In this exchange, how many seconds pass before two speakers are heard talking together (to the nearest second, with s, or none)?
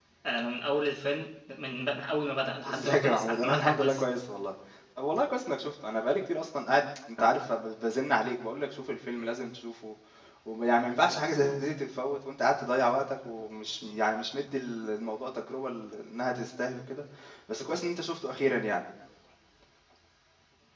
3 s